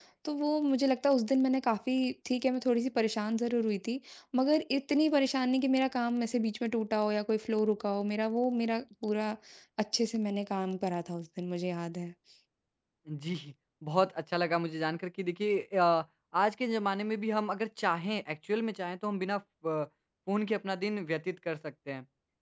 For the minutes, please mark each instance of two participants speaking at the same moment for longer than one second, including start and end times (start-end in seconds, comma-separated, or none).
none